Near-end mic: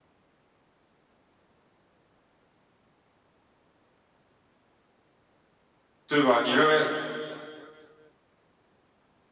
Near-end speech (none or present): present